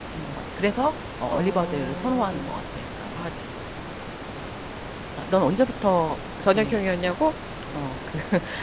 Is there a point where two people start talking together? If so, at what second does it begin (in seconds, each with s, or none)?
1.3 s